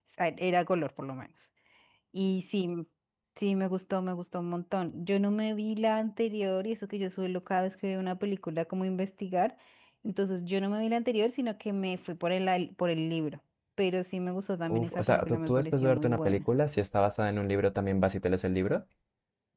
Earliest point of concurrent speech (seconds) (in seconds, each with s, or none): 14.7 s